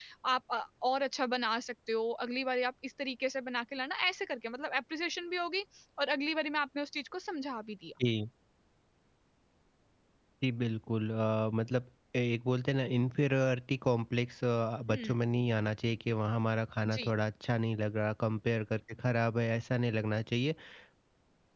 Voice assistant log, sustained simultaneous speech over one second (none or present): none